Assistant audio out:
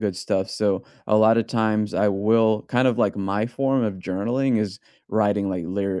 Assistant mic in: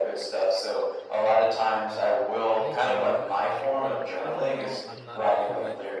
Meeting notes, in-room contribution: present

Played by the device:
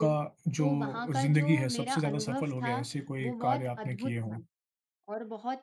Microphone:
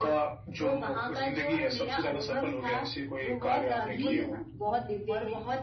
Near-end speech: present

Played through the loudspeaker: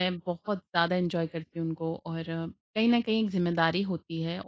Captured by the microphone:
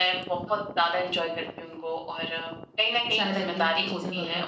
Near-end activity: present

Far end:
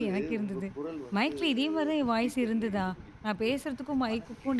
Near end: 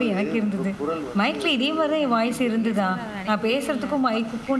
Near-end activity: present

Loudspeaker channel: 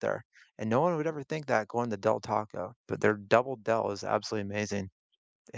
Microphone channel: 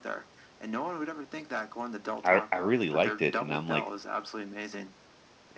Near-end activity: present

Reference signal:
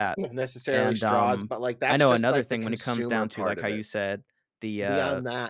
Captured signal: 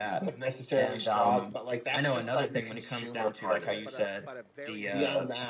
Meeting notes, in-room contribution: present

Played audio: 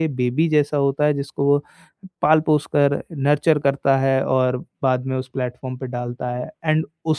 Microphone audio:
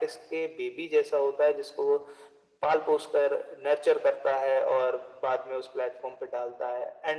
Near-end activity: none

